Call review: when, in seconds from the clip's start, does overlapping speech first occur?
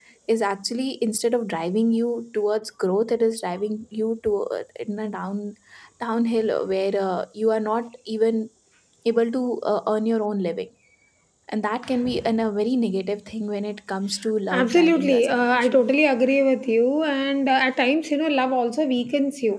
14.5 s

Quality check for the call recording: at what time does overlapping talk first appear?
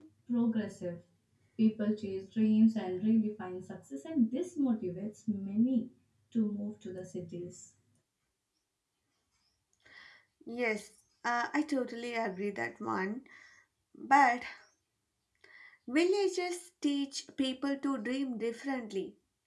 none

